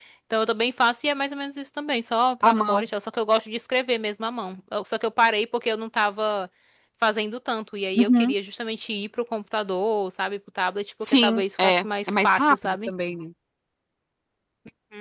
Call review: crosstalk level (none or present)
present